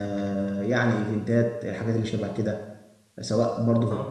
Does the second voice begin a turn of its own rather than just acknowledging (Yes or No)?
Yes